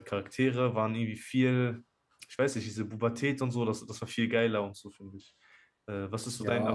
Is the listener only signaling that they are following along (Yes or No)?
No